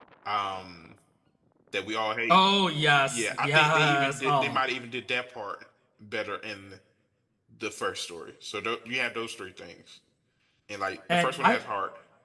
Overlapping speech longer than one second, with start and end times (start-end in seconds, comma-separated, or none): 3.0-4.6